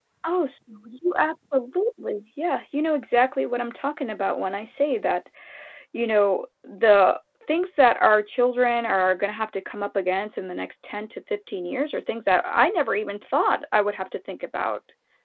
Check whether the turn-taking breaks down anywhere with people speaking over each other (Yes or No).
No